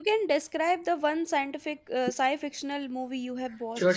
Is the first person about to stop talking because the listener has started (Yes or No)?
Yes